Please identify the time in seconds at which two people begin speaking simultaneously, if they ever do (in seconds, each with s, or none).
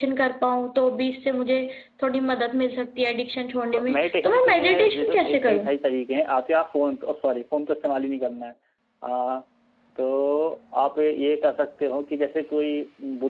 3.7 s